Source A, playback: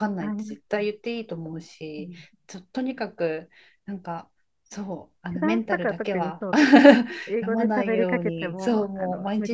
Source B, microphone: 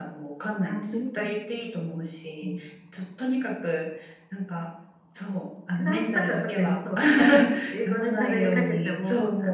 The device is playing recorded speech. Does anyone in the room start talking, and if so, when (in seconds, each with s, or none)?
0.9 s